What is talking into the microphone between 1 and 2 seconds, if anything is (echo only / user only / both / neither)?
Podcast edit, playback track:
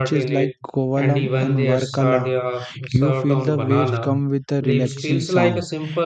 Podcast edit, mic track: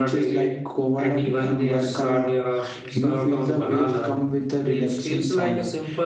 echo only